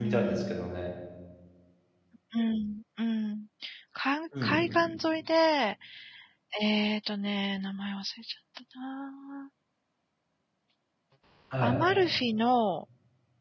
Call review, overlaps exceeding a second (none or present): none